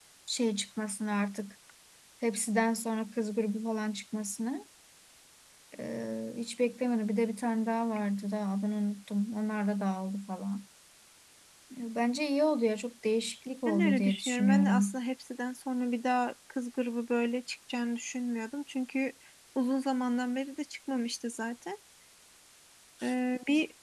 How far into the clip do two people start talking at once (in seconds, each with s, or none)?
13.7 s